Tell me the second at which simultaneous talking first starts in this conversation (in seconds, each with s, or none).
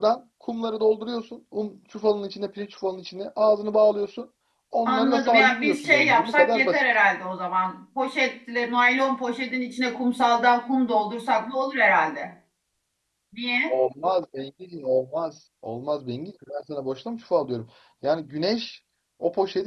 4.8 s